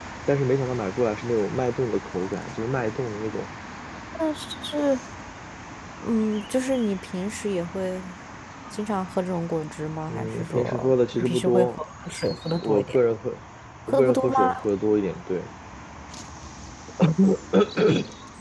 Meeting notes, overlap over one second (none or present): present